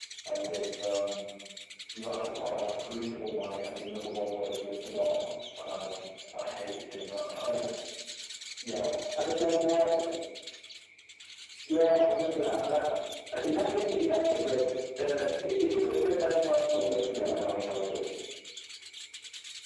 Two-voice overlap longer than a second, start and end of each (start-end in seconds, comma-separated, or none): 16.7-18.0